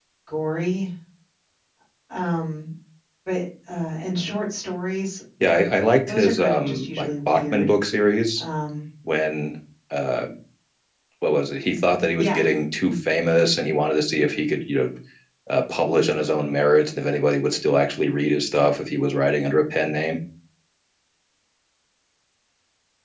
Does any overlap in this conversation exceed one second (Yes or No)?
Yes